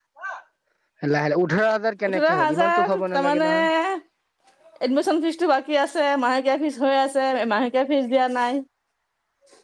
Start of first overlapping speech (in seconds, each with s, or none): 2.1 s